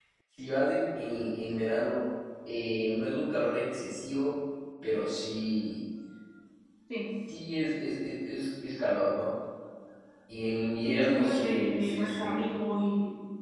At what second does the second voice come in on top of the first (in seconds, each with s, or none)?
10.9 s